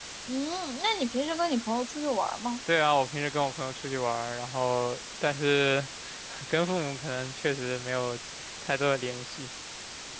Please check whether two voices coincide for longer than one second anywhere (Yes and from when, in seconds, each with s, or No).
No